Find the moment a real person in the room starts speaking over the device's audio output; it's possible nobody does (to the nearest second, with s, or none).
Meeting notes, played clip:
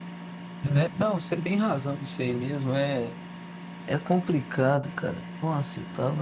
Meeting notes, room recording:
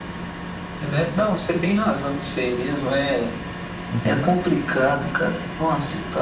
4 s